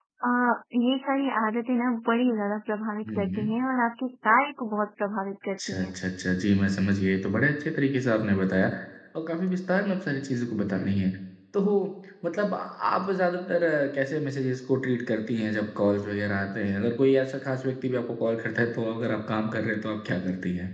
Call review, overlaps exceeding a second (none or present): none